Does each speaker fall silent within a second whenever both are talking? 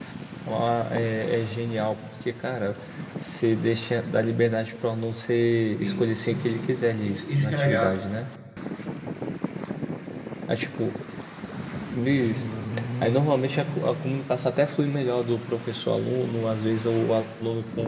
No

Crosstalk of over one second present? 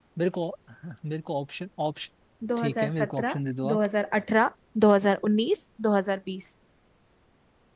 Yes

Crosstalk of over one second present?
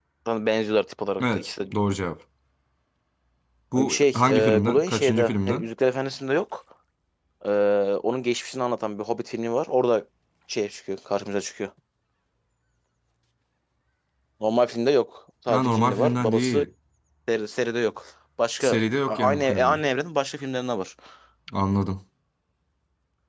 Yes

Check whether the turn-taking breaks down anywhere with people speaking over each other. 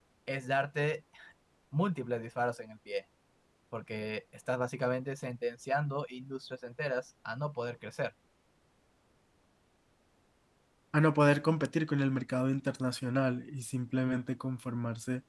No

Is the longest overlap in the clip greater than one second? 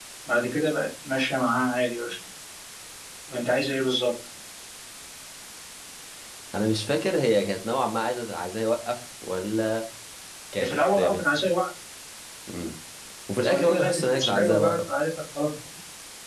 Yes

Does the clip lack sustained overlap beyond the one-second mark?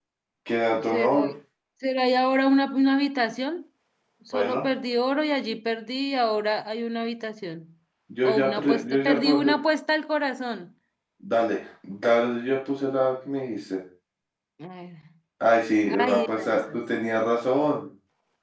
No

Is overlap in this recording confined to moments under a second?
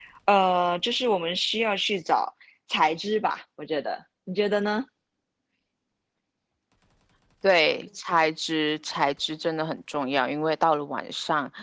Yes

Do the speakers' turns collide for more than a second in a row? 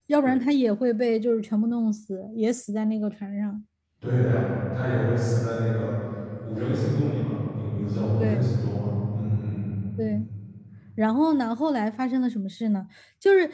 No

